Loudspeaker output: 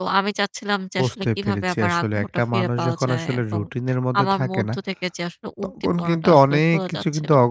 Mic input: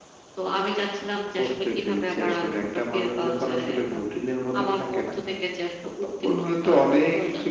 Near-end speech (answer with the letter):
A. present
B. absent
B